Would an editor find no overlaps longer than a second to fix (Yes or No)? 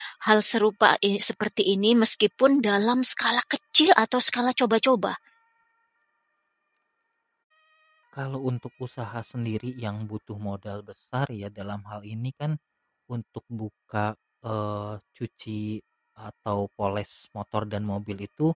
Yes